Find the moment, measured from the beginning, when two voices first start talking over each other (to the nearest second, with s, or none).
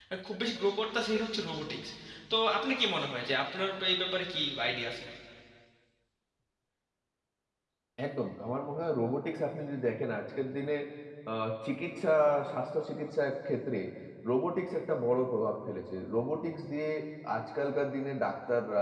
none